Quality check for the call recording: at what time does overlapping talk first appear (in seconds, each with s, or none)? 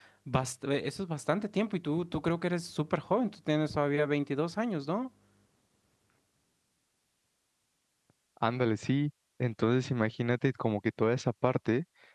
none